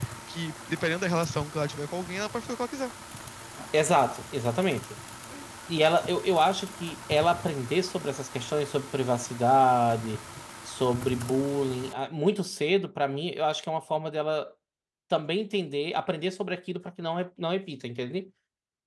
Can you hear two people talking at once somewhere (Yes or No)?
No